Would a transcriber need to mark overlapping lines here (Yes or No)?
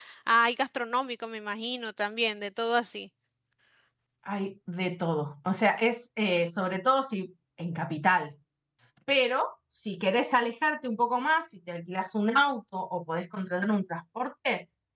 No